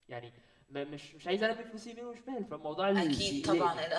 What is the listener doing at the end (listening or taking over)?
taking over